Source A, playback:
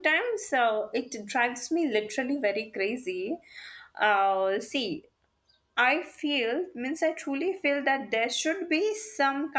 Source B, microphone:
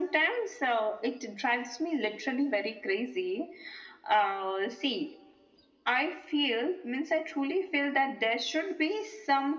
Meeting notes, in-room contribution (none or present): none